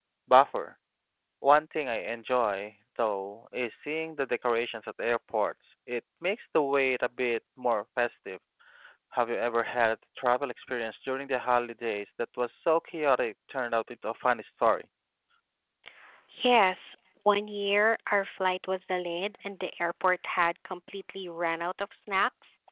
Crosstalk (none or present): none